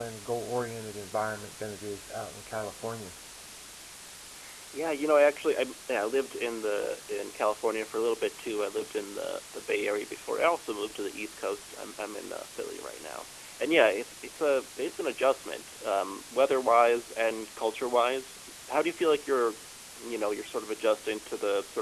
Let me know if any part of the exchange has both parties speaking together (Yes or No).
No